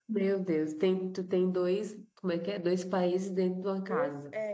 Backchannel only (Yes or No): No